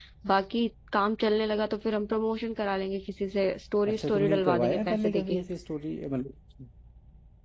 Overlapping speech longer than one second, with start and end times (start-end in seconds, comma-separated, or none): 3.9-5.4